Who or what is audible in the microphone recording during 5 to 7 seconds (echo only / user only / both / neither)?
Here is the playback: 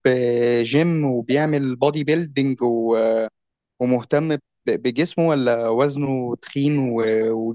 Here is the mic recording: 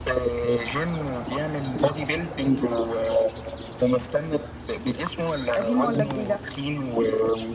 both